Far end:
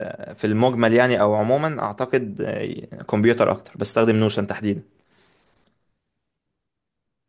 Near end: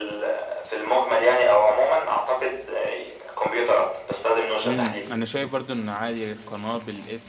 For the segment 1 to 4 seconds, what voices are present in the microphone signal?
echo only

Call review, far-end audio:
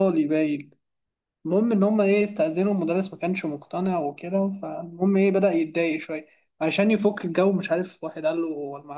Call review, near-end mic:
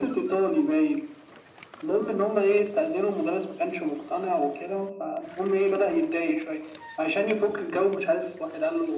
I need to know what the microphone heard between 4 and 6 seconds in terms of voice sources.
echo only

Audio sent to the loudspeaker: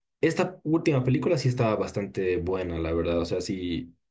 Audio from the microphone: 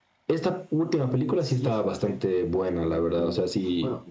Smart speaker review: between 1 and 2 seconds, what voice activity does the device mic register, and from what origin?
both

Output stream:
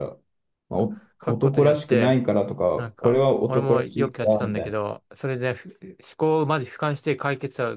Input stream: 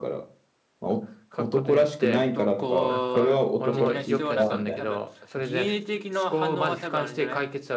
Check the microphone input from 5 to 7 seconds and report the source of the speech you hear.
both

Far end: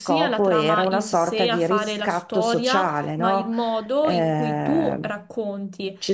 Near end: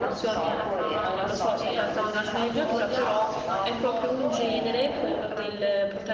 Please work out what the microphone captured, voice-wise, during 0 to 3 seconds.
both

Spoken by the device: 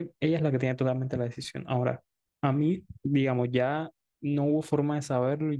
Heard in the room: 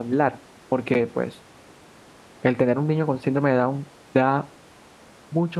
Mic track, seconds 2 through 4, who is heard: user only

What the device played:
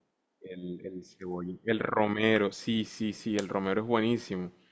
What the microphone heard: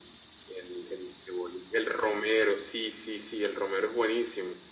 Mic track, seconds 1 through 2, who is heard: echo only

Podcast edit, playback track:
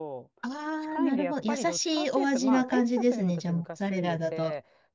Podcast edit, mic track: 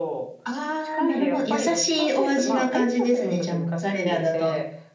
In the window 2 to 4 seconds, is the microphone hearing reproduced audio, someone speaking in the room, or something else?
echo only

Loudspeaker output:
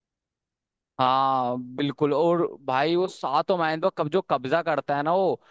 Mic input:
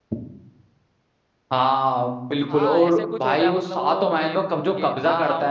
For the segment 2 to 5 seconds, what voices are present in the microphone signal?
both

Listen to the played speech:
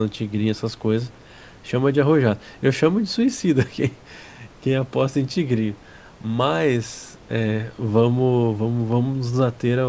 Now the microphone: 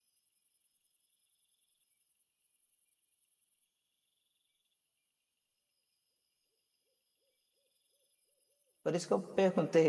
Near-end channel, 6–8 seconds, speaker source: neither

